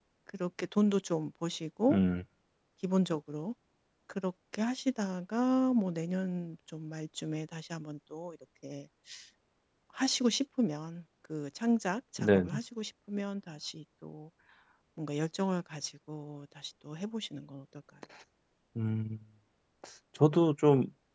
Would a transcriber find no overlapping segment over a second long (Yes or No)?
Yes